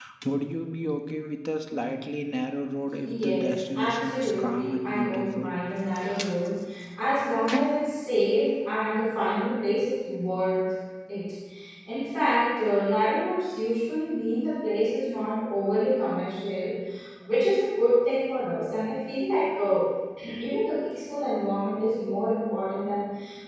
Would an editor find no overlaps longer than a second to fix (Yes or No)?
No